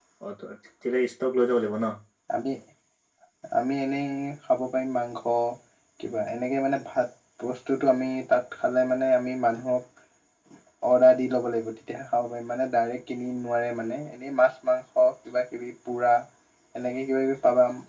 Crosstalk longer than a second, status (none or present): none